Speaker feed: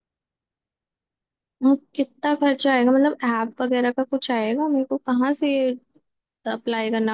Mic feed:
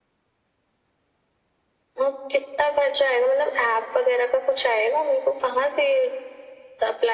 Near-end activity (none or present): none